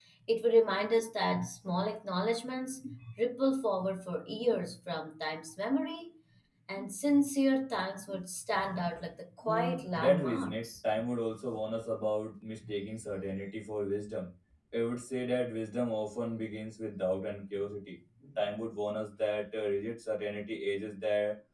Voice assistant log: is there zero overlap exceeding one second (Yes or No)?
No